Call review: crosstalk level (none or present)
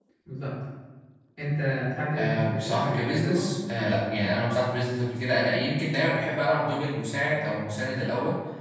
present